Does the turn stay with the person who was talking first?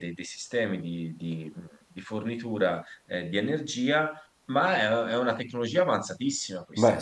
Yes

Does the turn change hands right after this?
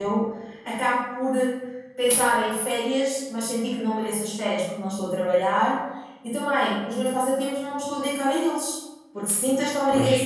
No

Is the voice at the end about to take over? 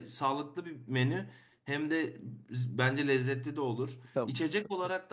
No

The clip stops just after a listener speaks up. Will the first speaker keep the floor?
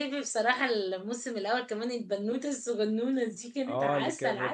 No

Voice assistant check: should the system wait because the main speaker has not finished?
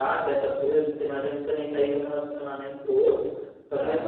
Yes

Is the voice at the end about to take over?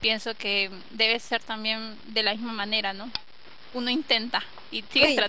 Yes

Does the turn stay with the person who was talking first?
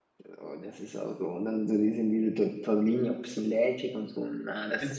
No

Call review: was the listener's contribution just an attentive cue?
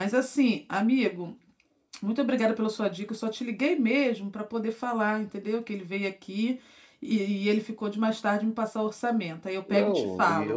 No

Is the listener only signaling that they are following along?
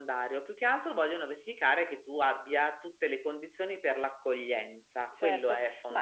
No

